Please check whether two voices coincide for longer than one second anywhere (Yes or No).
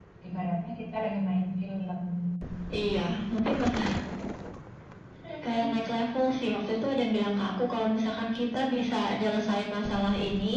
No